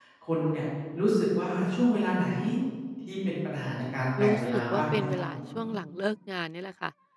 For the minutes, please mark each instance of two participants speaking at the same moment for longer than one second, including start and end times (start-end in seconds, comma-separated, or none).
4.2-5.4